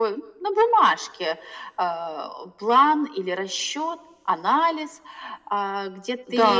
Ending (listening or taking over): taking over